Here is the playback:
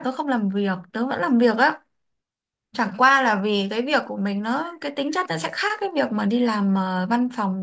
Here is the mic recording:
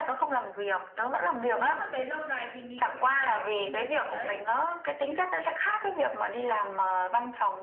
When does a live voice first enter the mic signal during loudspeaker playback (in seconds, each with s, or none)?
1.6 s